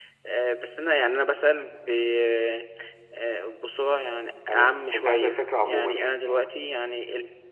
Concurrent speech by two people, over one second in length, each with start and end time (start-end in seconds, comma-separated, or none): 4.5-6.5